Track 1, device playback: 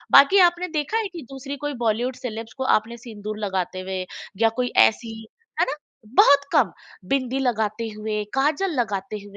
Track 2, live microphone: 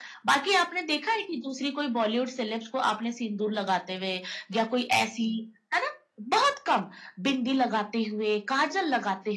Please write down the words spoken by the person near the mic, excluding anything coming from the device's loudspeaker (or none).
none